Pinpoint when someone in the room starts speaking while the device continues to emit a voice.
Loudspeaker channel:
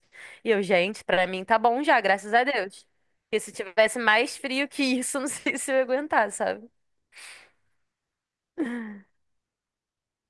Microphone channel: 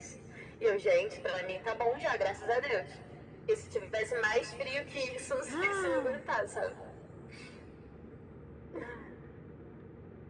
5 s

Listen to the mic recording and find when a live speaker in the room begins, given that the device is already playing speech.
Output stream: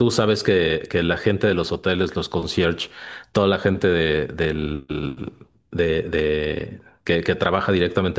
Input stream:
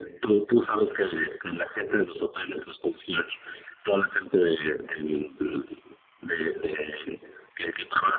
none

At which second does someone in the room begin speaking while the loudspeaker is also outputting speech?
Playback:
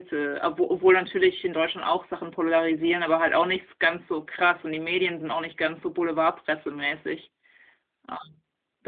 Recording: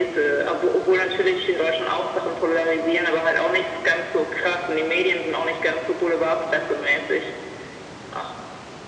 none

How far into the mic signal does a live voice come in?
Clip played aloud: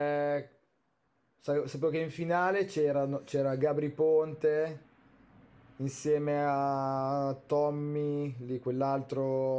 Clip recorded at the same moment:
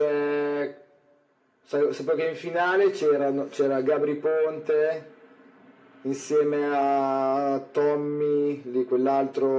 none

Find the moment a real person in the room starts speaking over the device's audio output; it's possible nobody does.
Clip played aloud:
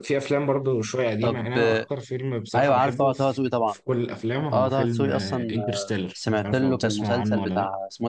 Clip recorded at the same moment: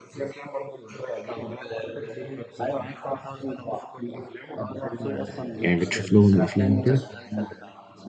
6 s

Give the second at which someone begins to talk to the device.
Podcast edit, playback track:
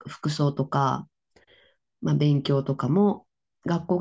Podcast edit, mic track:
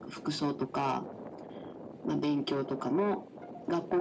none

